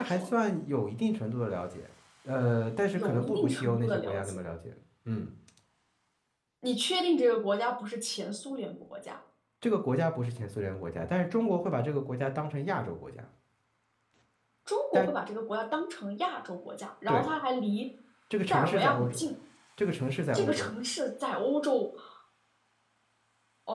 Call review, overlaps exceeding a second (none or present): present